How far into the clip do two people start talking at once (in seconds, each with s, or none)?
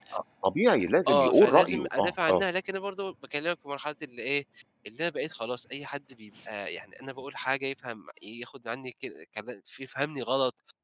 1.1 s